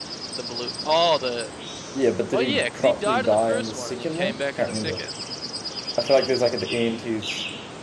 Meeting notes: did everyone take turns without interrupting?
No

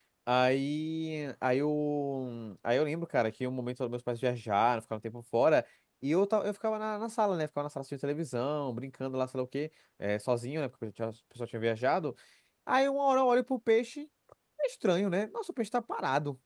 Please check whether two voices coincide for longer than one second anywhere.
No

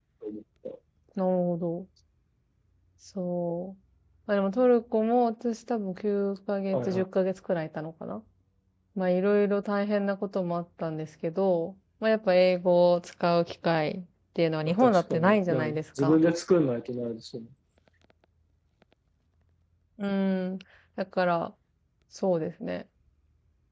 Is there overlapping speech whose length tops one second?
Yes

